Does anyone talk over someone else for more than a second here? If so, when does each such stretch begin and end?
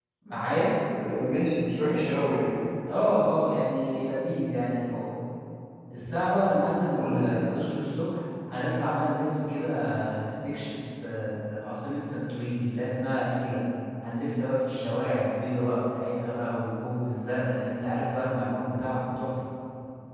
none

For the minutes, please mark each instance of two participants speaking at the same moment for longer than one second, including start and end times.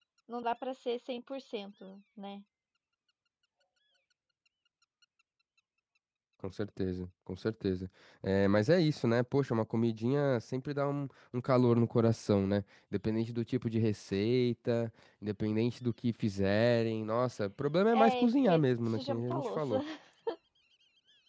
17.9-19.8

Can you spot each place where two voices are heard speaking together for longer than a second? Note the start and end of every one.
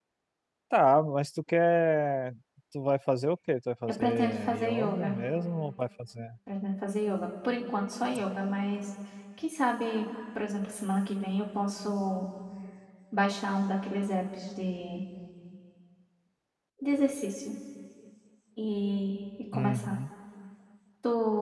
3.9-5.2

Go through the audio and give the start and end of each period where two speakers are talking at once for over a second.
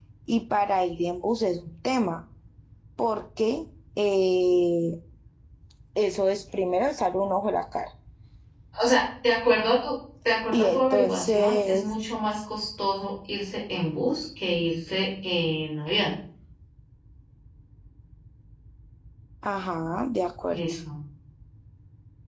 10.5-11.9

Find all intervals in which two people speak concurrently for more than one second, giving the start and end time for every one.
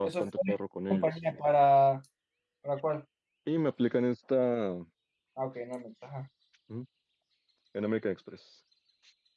none

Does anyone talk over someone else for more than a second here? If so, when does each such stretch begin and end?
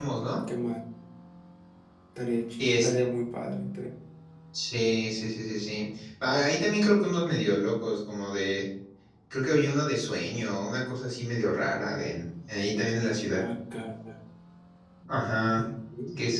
none

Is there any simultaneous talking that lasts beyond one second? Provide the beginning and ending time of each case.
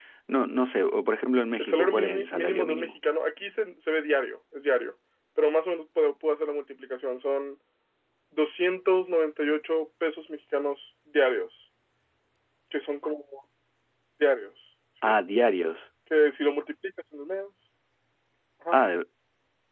1.6-2.9

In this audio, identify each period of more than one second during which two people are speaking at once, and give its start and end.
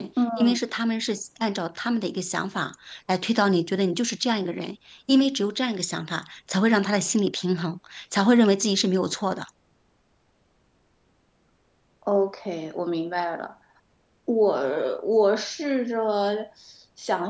none

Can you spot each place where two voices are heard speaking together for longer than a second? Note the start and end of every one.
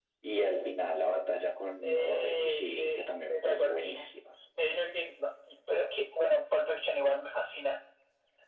1.8-4.1

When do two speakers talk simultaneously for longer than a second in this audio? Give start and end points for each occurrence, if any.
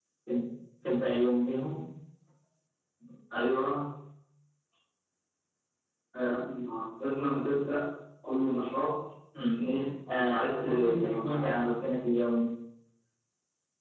10.1-11.8

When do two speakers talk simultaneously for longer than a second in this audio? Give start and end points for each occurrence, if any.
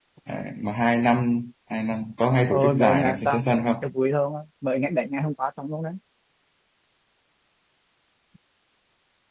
2.5-3.8

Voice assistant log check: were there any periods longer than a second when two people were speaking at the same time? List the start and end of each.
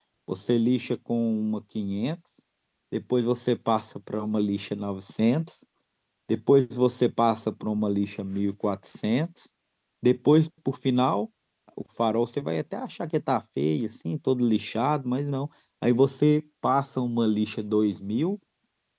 none

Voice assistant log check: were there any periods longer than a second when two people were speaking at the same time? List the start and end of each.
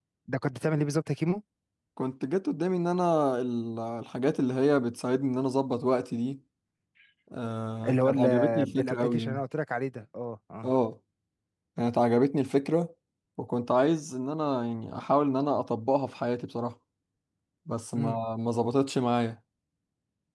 7.9-9.4

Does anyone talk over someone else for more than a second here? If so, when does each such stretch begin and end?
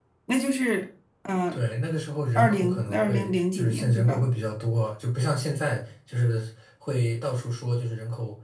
2.4-4.2

